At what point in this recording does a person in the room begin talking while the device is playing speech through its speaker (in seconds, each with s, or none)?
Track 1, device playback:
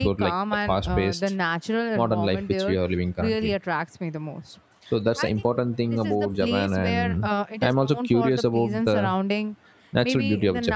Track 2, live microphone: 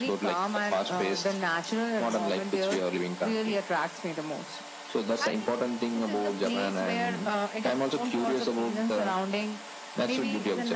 none